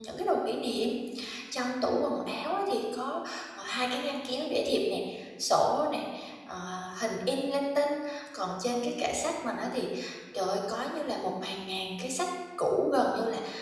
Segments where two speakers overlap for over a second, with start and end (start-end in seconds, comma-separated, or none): none